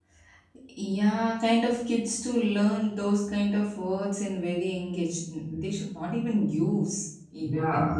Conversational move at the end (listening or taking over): taking over